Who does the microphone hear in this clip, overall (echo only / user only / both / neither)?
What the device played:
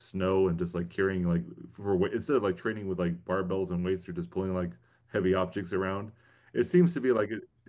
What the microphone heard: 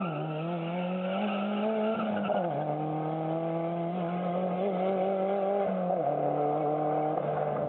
neither